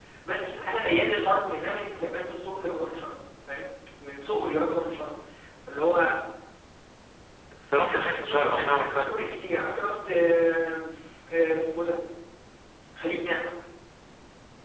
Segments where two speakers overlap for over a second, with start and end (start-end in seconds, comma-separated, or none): 7.9-9.4